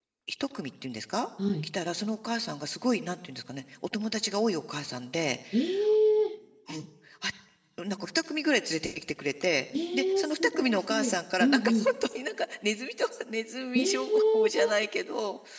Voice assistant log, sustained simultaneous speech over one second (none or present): present